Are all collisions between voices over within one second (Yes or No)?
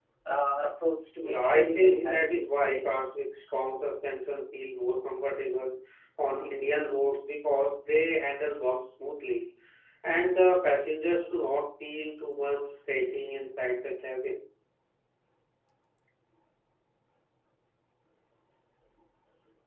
No